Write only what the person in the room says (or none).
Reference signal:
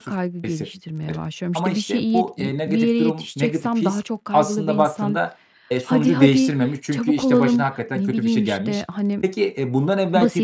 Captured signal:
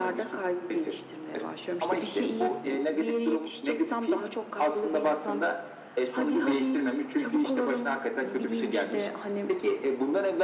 none